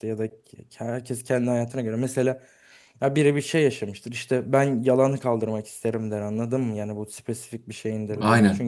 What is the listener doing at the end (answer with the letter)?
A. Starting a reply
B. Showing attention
B